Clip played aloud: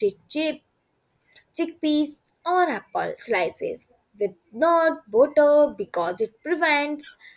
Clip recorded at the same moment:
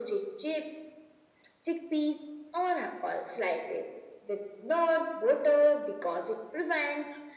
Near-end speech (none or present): none